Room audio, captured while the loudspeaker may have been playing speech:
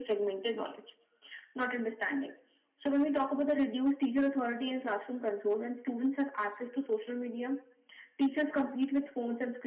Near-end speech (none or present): none